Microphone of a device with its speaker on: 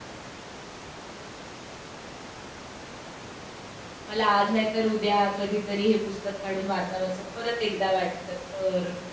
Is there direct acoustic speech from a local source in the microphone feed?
Yes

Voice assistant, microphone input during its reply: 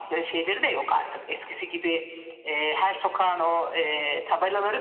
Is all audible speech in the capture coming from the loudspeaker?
Yes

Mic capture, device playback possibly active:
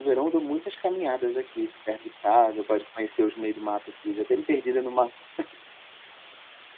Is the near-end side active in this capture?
Yes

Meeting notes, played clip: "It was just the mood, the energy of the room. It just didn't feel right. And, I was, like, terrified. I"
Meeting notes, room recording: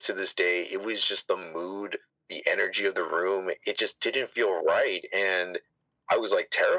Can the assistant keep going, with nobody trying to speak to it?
Yes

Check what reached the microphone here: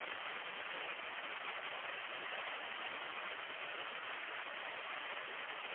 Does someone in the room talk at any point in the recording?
No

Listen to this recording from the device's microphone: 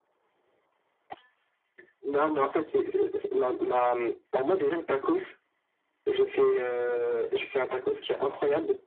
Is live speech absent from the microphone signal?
Yes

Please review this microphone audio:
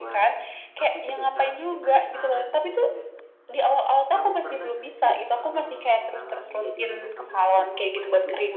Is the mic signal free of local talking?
No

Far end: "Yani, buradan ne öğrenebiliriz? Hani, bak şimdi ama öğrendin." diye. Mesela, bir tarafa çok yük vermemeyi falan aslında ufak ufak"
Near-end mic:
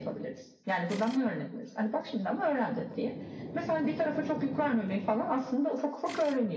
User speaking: No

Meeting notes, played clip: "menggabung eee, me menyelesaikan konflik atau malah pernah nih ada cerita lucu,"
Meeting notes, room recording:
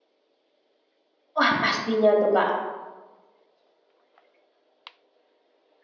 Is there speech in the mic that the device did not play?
Yes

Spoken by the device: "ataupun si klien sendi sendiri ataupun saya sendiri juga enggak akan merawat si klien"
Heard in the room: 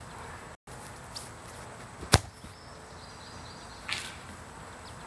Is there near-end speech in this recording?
No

